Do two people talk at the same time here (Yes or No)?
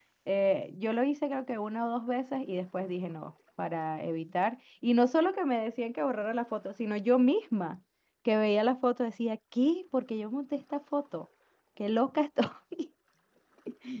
No